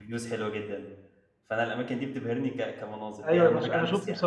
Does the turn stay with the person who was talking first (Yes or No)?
No